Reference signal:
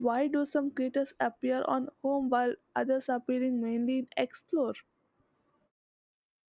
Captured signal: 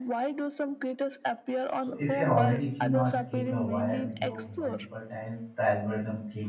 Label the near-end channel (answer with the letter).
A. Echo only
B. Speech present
B